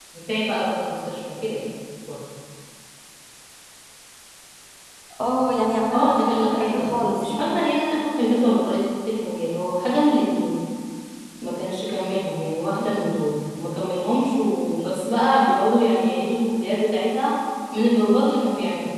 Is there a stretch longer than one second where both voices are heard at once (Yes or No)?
Yes